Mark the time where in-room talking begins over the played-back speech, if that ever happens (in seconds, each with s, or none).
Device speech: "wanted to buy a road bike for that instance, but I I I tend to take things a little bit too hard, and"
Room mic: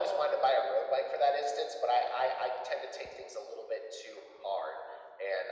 none